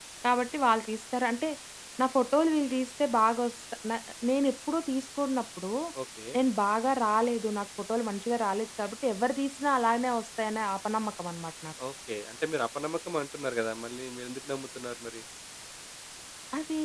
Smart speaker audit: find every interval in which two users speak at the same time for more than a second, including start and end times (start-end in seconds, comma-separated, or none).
none